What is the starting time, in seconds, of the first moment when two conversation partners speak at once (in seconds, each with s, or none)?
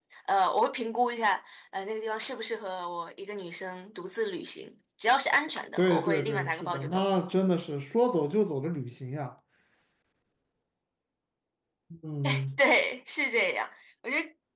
5.8 s